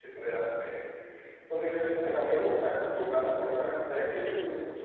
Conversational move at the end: listening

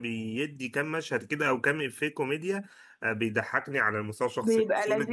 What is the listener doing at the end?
listening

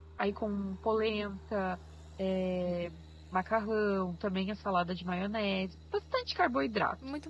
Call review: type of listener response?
taking over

